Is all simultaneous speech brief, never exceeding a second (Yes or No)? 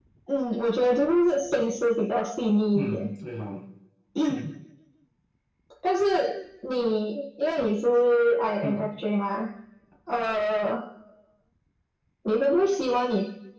Yes